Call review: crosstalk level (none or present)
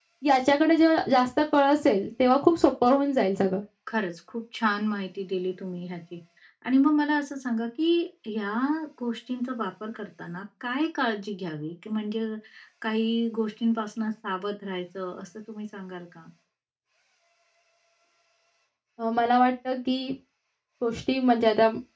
none